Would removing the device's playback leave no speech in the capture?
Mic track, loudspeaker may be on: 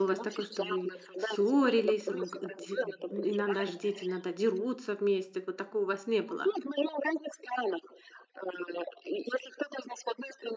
No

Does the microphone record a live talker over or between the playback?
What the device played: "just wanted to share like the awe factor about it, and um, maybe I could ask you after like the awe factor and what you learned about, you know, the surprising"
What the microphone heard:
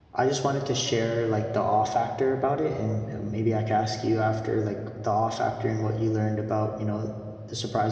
No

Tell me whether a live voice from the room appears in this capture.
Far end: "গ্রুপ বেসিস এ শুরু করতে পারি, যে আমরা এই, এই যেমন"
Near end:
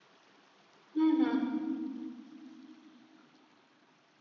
Yes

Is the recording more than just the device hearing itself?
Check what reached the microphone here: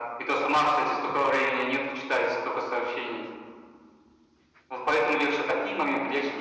No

